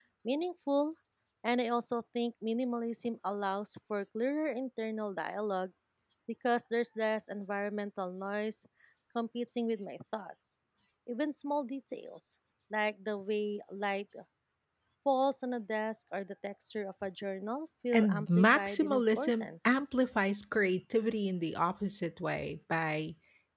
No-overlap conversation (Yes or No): No